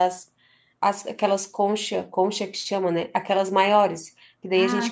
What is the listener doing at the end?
listening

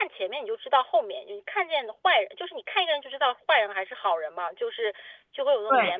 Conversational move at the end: listening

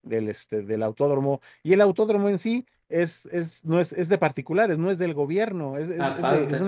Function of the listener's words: listening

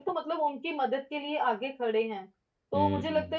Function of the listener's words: listening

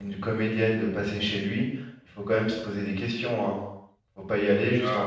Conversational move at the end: taking over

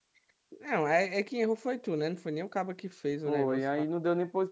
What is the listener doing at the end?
taking over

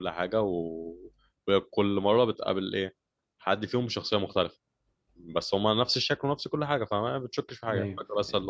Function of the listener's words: taking over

